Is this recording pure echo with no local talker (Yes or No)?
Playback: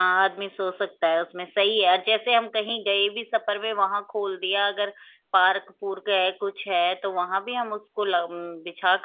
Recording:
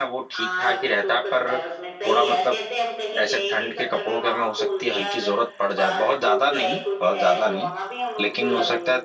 No